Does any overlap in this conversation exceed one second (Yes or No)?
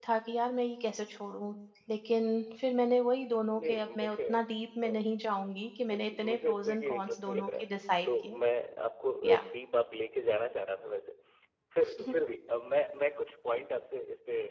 Yes